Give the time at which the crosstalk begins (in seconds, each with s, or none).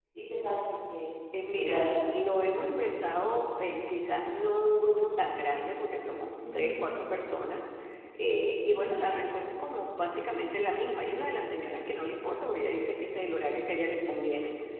1.3 s